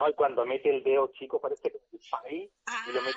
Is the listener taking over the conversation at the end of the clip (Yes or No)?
No